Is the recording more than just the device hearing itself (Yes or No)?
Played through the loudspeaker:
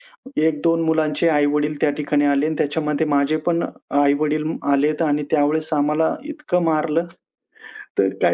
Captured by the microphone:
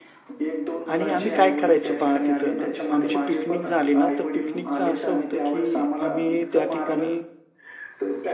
Yes